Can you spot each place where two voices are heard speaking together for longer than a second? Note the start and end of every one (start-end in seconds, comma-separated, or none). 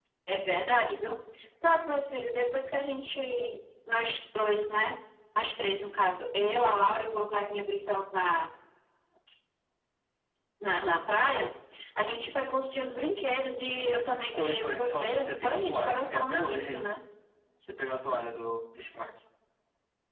14.3-16.9